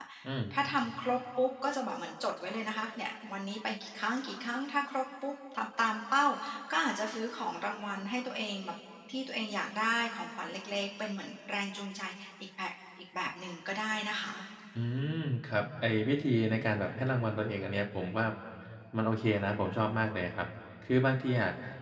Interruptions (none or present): none